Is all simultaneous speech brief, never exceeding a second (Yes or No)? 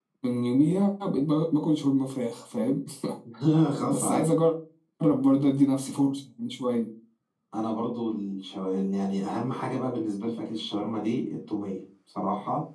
Yes